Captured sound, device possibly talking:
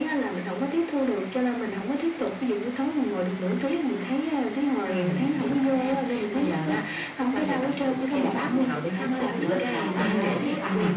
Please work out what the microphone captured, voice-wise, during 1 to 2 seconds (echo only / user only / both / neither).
echo only